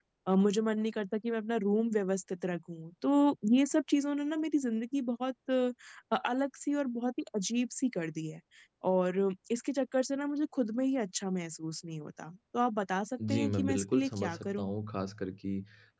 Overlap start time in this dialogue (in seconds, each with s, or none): 13.2 s